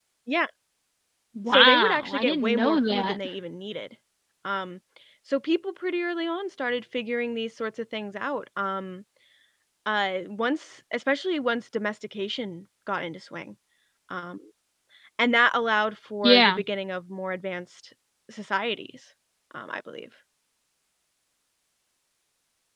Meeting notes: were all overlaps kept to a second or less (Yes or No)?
No